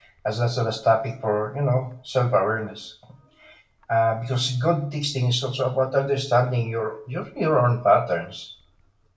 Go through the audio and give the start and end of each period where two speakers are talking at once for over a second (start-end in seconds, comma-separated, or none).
none